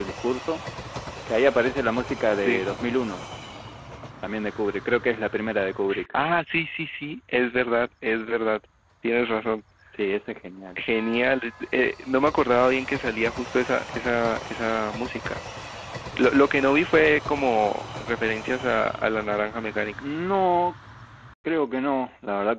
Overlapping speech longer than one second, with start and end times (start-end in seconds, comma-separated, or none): none